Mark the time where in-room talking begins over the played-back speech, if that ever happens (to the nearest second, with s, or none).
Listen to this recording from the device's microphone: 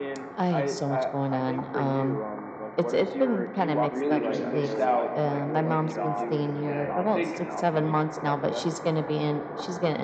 4 s